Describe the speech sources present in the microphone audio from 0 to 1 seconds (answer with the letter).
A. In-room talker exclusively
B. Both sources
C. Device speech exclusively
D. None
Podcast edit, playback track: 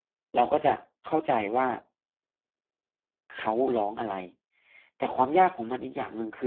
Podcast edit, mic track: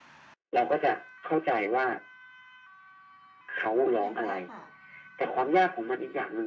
C